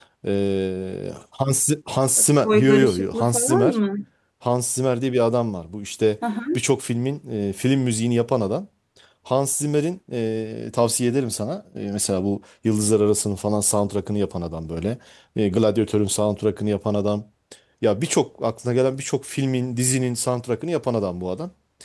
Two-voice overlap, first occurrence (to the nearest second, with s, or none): 2 s